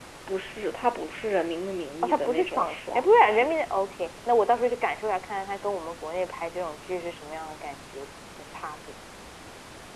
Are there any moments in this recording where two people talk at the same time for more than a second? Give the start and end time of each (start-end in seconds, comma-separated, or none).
2.0-3.5